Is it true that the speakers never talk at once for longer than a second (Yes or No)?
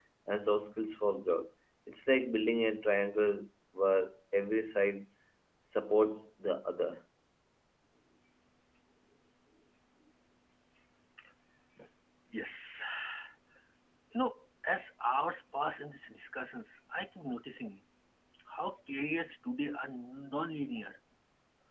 Yes